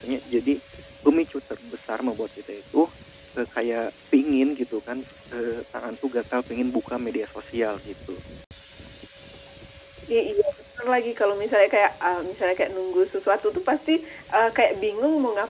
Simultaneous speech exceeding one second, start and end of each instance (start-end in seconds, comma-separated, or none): none